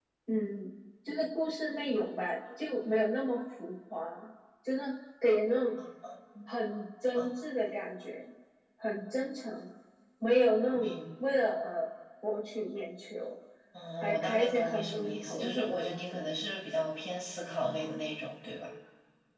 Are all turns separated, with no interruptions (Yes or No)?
No